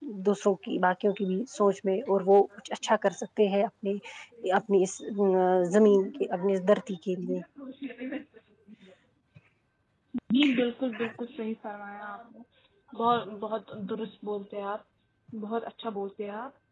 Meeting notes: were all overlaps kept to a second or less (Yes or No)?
Yes